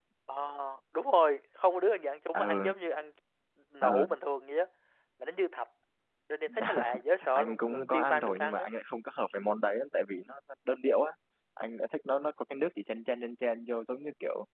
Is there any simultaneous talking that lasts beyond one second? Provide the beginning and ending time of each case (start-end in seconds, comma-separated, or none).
7.3-8.7